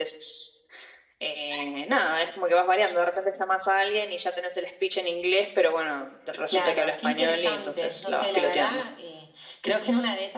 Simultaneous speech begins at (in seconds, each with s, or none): 6.5 s